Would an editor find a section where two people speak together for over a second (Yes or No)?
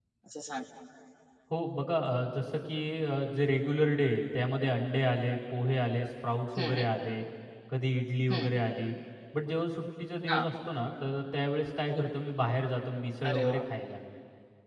No